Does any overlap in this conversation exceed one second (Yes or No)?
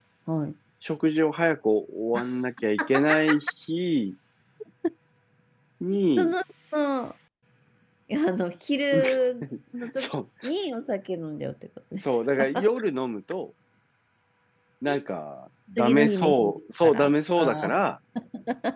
Yes